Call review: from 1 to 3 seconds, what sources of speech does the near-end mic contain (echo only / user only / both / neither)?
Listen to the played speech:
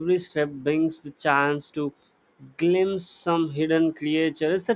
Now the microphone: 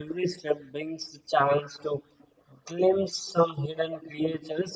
echo only